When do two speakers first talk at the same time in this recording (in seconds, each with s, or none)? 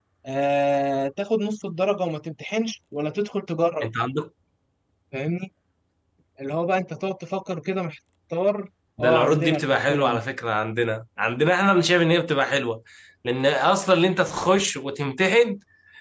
9.0 s